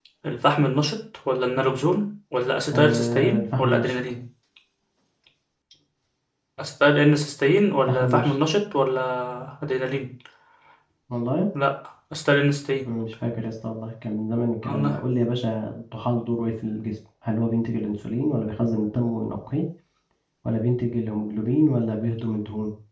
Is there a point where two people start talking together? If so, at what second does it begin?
2.7 s

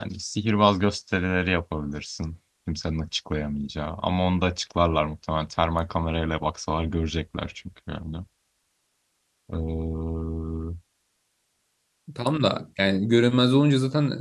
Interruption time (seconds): none

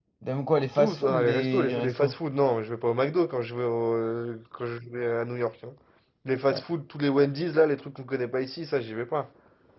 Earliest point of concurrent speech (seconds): 0.8 s

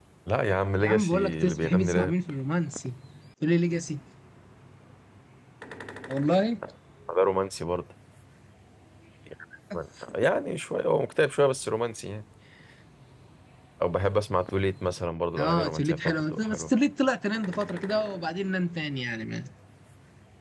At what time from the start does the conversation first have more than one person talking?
0.8 s

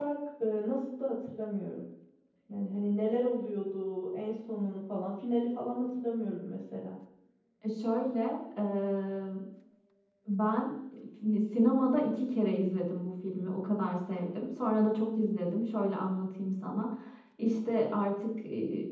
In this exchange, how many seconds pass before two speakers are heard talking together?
none

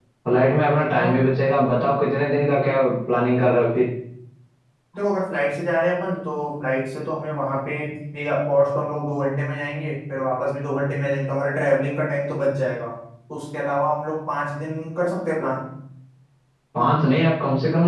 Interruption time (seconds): none

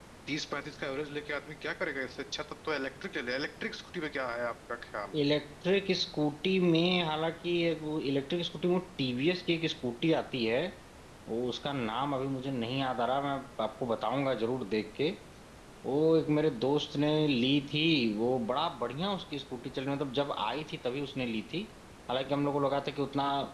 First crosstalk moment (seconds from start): none

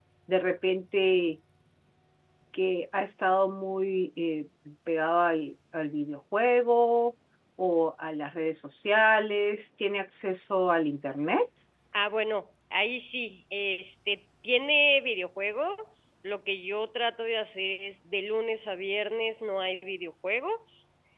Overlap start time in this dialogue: none

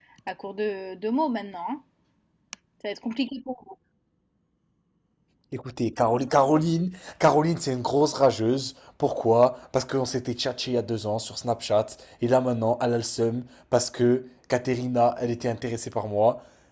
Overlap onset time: none

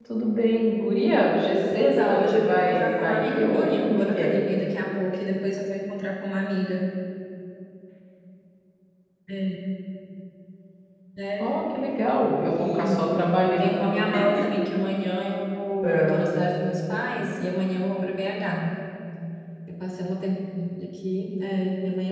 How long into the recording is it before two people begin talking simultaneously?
1.7 s

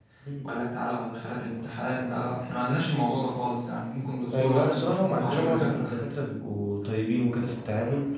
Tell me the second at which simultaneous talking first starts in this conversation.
4.3 s

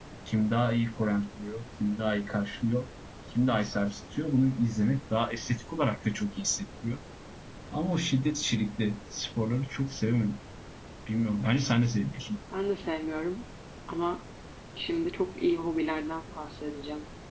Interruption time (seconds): none

